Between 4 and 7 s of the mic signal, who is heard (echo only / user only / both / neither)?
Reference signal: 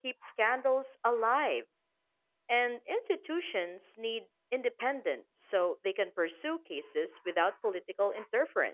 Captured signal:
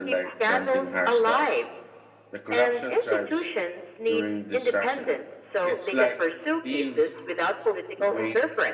both